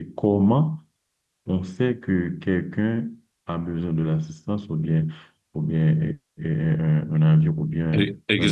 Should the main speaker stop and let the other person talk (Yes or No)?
Yes